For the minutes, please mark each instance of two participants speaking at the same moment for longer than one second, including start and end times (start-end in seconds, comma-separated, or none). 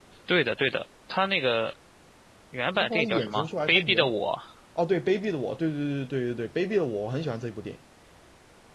2.7-4.1